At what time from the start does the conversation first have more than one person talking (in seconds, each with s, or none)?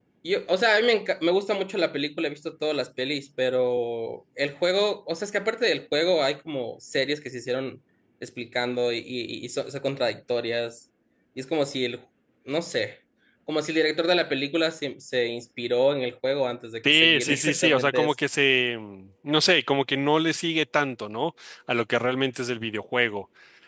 16.8 s